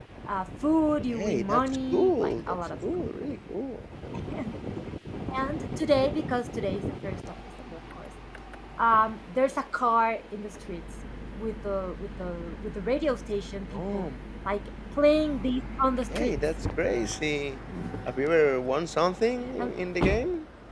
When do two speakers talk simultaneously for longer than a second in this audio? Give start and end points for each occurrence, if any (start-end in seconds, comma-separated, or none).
1.1-2.6